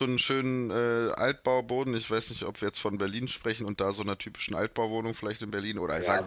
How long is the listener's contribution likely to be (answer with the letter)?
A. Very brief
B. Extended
B